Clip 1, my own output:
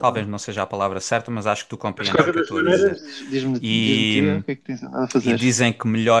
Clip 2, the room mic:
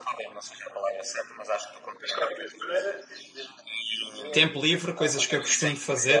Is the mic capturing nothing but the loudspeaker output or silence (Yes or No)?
No